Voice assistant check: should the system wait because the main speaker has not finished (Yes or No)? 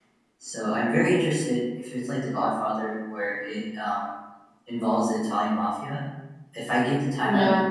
Yes